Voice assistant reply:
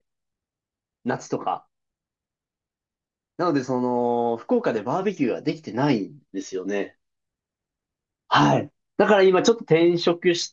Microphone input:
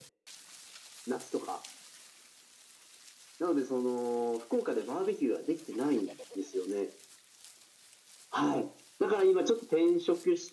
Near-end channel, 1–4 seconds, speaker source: echo only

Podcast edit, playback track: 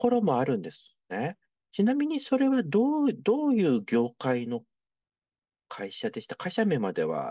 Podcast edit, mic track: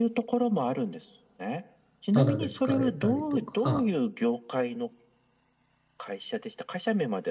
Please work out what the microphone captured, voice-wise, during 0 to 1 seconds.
echo only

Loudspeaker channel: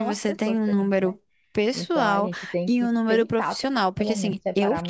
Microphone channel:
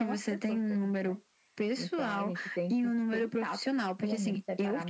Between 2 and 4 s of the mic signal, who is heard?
echo only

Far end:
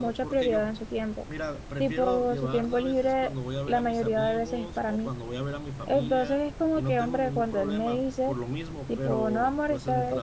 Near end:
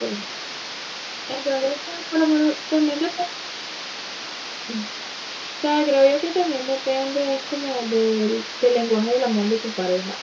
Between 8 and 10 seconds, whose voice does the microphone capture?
user only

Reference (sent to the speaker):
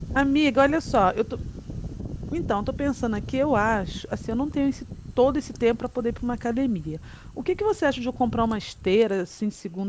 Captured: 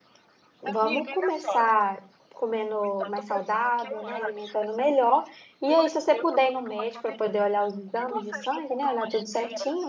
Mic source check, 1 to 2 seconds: both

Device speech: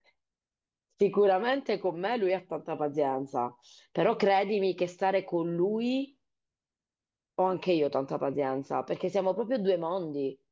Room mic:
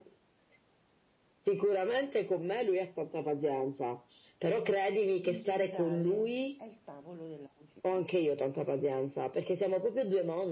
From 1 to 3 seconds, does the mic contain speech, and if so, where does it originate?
echo only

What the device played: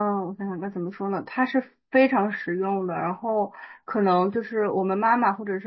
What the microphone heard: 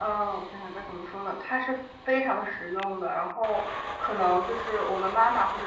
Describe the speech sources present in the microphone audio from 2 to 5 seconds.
echo only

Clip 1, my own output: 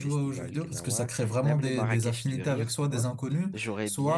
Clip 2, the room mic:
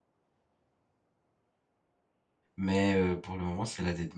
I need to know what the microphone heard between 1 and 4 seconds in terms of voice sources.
user only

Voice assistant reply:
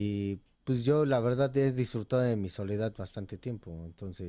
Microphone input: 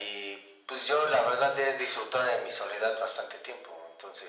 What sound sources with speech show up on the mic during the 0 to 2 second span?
echo only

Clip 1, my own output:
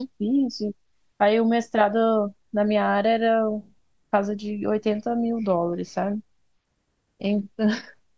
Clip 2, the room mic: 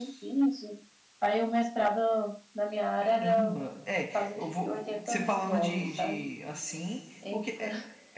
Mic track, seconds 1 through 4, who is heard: both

